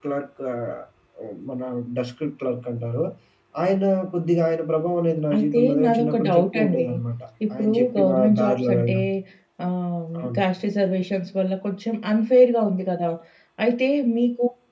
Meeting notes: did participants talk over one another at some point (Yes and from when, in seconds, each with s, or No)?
Yes, from 5.4 s